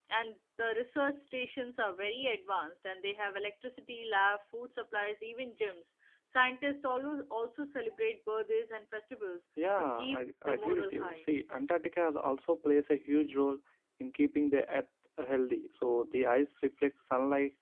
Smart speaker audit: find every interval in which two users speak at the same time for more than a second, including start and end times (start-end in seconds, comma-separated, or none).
9.8-11.3